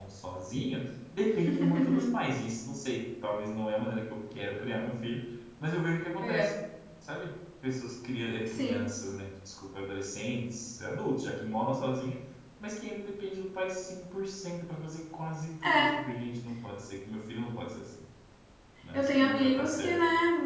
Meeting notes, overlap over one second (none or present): present